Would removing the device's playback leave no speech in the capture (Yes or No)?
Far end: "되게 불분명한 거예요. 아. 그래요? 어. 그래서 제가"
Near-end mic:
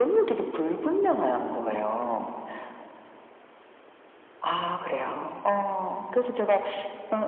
Yes